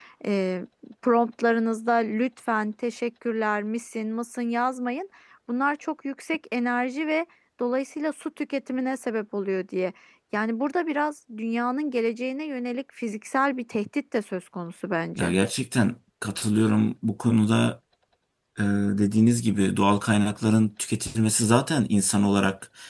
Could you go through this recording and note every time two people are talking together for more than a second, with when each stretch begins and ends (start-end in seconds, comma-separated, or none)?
none